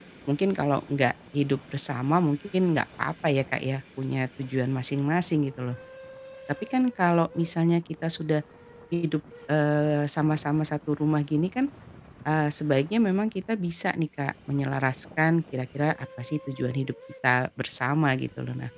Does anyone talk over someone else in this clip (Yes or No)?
No